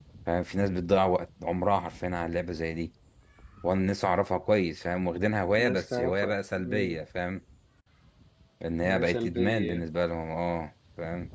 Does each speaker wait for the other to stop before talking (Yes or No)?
No